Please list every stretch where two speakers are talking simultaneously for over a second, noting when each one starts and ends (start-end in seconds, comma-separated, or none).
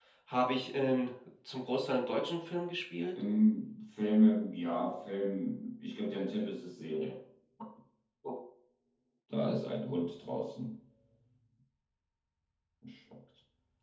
none